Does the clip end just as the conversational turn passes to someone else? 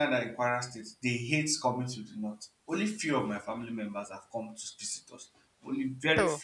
No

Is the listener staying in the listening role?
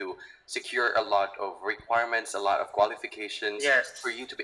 Yes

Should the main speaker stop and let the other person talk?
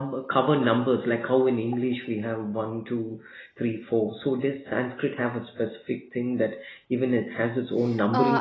Yes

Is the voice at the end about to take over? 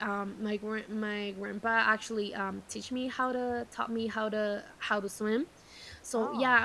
No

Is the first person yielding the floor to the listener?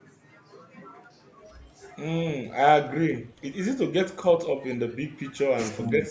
No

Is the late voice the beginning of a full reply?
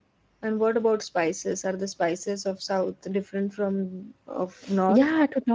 Yes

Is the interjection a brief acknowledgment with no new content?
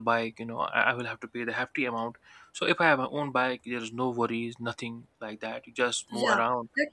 No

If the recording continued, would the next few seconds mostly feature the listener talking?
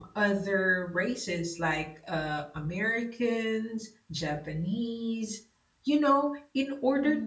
No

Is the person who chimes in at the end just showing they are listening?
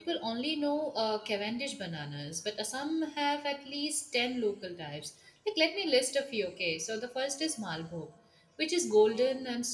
Yes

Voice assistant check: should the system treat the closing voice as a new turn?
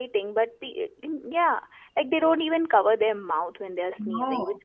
No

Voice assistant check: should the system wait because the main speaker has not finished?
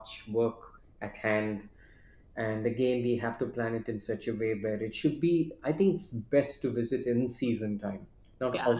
No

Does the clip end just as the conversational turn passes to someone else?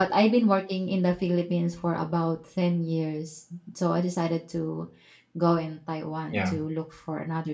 No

